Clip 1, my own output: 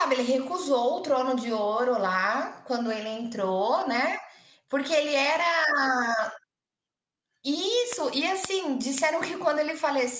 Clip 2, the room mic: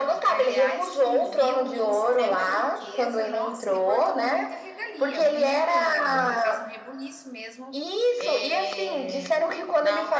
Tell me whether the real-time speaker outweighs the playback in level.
No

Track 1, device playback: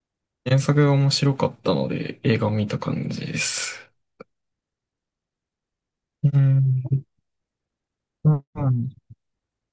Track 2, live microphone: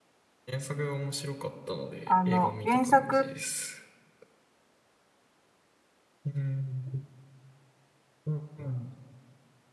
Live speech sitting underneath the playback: No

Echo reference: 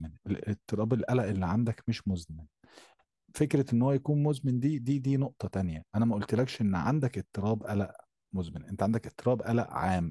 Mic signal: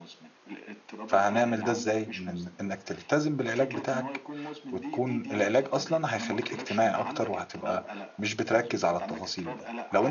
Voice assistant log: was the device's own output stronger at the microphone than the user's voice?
No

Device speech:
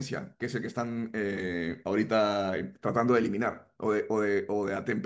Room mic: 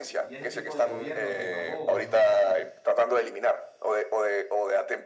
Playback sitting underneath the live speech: No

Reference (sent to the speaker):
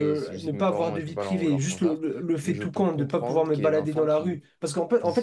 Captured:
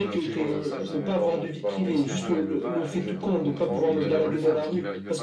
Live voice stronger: No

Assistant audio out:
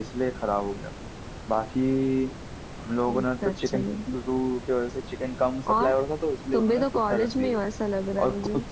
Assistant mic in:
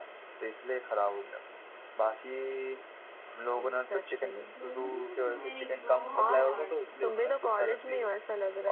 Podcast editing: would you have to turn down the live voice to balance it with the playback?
No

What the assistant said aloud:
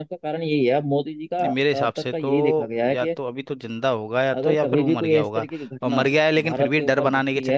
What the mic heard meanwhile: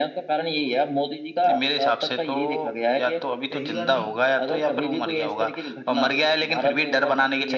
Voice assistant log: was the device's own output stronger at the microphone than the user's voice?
Yes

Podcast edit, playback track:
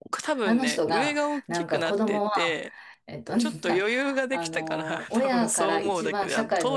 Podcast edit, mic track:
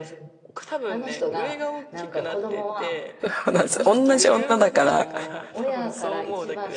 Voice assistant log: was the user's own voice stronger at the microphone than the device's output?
Yes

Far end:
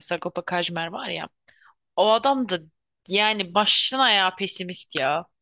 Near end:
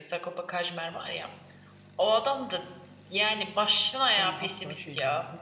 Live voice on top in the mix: No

